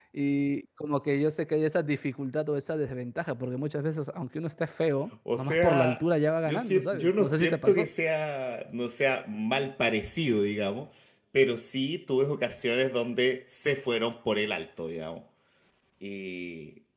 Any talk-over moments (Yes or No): Yes